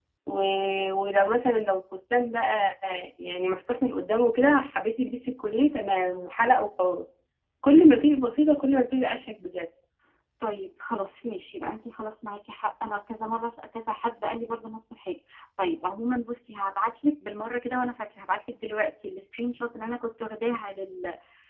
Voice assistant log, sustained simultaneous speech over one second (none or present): none